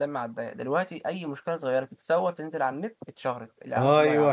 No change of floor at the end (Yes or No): No